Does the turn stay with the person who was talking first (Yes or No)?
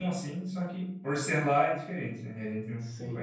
No